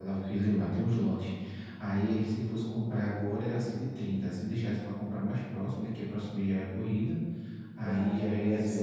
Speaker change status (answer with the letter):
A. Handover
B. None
A